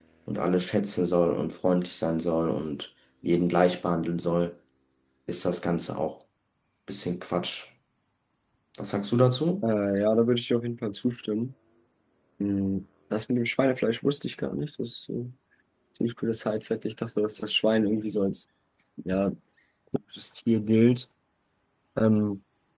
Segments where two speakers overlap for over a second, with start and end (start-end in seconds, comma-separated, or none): none